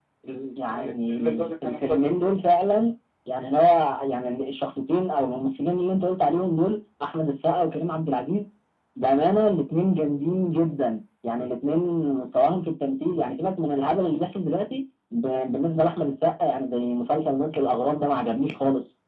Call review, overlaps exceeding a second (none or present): present